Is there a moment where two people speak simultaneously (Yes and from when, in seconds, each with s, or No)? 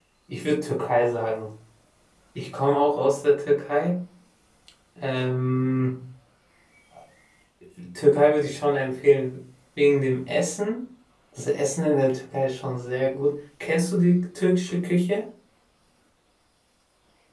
No